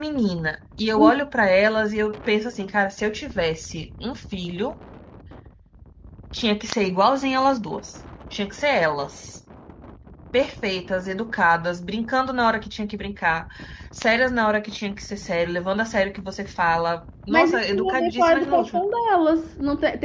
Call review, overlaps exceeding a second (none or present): present